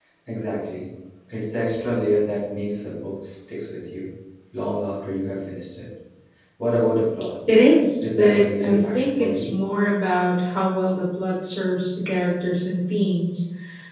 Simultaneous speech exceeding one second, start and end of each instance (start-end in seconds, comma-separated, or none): 8.0-9.5